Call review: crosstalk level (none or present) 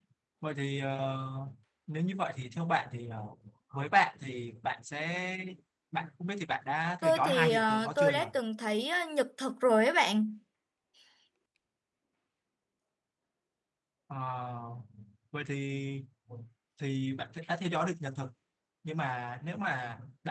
present